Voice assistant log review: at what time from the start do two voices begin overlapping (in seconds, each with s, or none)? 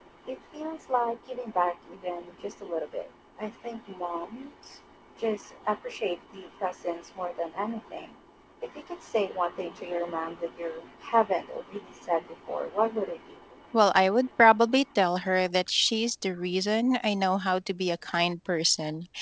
none